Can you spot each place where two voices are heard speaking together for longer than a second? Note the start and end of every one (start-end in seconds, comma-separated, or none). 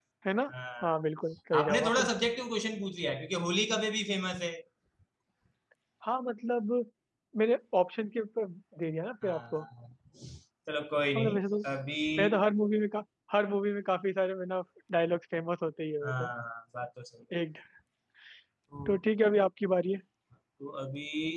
none